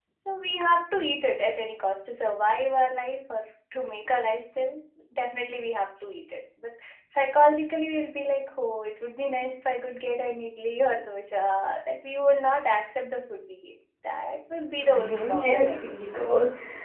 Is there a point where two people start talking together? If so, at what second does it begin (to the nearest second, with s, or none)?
15 s